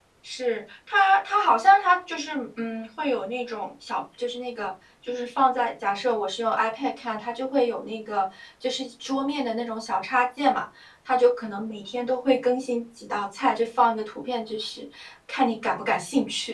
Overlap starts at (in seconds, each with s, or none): none